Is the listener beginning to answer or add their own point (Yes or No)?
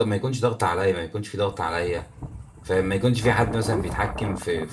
No